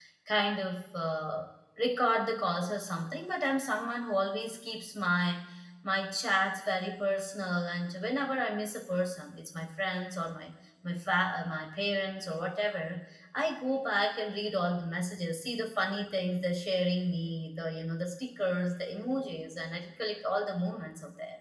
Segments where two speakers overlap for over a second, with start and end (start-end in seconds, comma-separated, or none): none